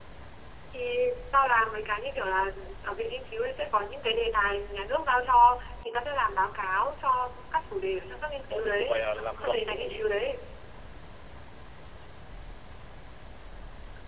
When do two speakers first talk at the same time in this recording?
8.5 s

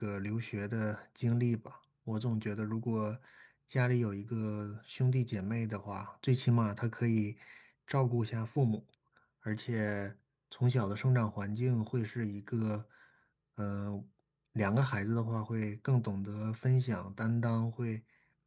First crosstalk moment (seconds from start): none

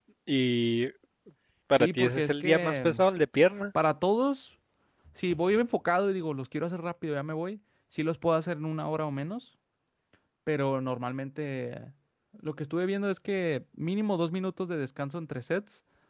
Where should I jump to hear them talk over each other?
1.8 s

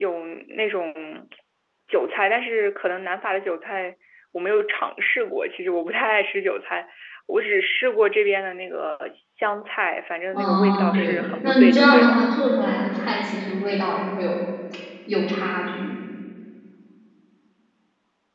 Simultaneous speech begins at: 10.3 s

